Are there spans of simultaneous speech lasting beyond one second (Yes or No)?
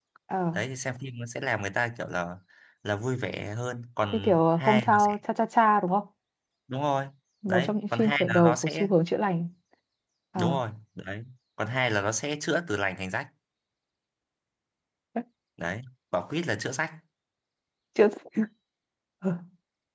Yes